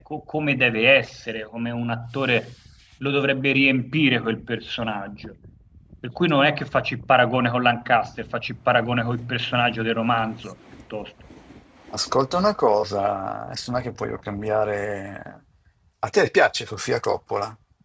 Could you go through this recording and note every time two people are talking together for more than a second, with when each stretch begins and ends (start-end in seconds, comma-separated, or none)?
none